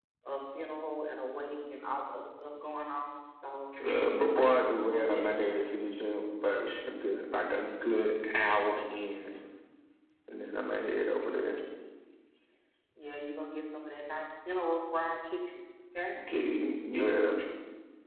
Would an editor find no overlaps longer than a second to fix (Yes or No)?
No